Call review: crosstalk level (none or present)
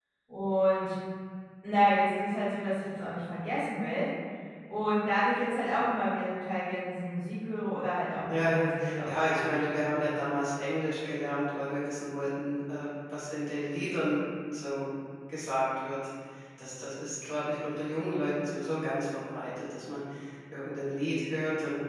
present